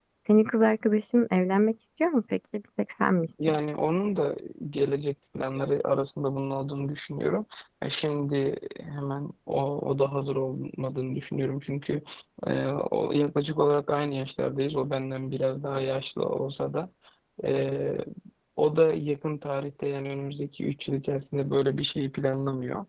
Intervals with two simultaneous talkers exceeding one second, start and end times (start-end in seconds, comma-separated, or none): none